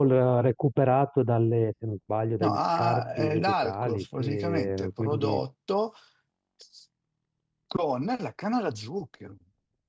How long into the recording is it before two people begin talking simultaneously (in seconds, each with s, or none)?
2.4 s